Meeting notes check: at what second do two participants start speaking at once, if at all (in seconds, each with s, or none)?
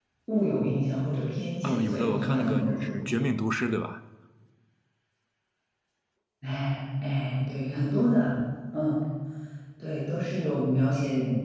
1.6 s